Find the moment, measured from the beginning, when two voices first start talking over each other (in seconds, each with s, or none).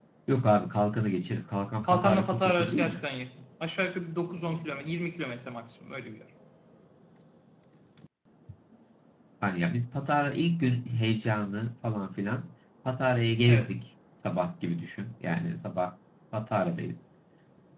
1.8 s